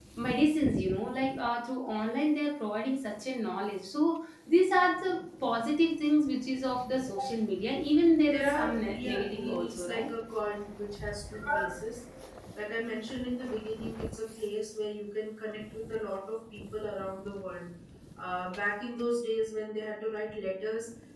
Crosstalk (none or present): present